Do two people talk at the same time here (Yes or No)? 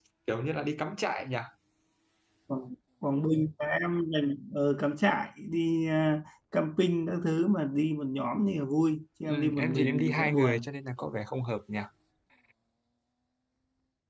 Yes